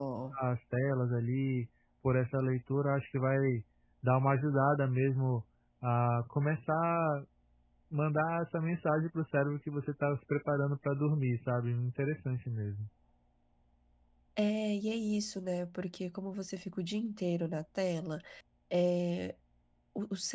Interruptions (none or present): none